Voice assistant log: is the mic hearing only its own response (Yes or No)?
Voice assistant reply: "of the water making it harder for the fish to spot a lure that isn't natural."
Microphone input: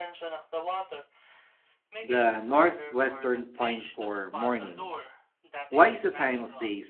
No